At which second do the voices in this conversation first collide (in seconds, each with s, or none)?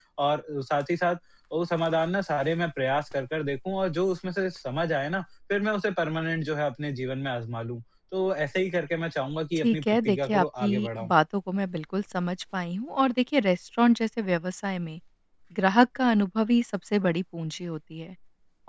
9.6 s